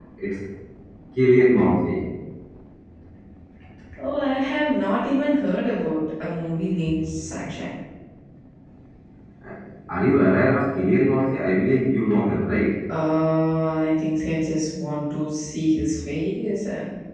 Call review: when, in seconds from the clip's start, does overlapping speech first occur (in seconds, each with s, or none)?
none